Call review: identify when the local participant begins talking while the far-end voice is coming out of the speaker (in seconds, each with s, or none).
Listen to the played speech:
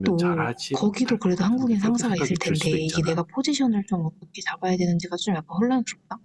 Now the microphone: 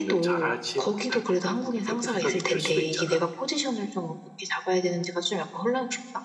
none